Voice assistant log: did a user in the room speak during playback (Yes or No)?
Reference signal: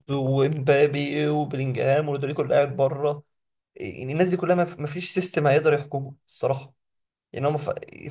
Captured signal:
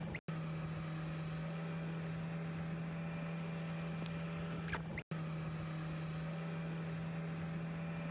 No